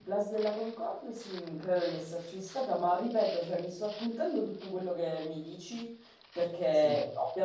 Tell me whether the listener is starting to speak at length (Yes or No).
No